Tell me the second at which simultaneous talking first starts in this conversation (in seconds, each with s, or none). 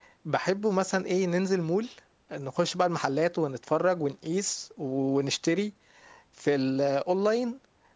none